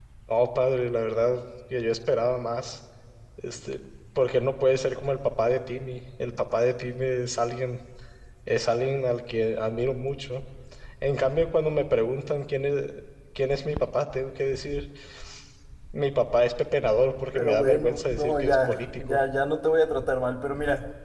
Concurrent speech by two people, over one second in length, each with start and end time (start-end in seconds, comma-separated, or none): 17.3-19.2